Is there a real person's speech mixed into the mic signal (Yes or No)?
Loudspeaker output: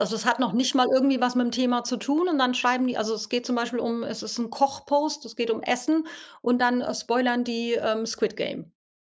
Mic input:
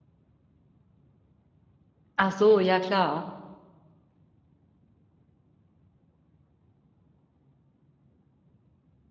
Yes